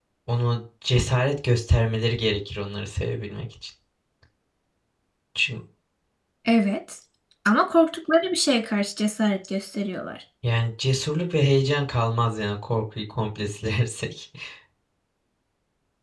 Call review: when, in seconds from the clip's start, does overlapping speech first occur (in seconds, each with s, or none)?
none